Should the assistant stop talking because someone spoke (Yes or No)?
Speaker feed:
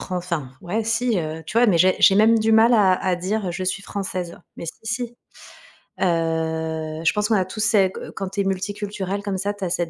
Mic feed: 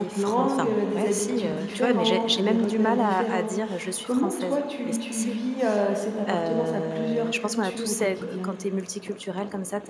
Yes